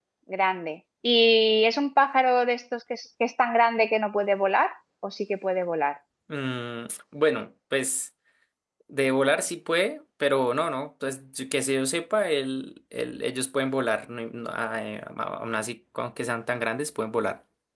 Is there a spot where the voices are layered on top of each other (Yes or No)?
No